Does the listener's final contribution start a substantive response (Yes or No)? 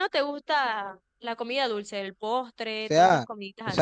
Yes